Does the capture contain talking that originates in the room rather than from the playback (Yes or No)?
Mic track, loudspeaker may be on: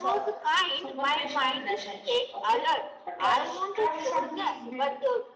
Yes